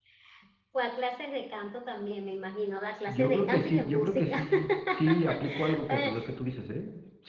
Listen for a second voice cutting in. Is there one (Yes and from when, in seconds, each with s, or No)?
Yes, from 3.1 s